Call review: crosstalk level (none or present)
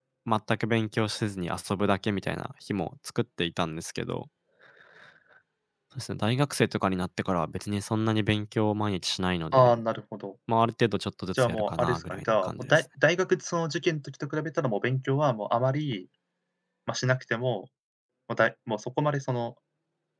present